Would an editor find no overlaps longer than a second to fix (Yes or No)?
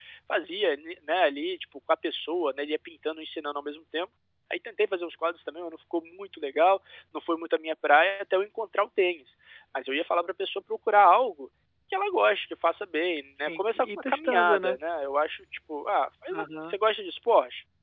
No